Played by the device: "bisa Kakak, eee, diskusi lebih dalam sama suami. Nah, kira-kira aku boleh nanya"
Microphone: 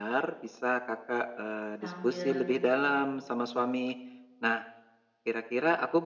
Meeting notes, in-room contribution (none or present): present